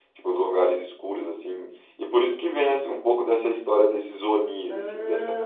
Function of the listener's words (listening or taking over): listening